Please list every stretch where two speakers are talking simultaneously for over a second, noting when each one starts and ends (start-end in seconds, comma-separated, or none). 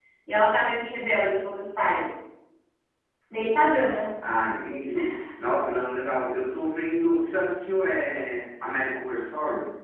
none